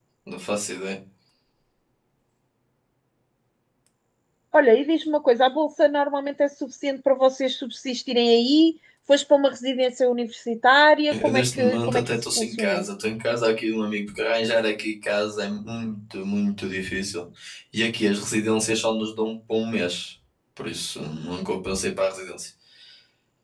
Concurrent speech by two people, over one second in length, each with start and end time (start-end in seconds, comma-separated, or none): 11.2-12.8